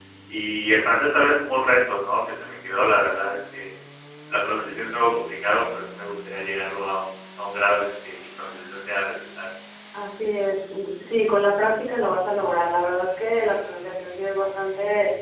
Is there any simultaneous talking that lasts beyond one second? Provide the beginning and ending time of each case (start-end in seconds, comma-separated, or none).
none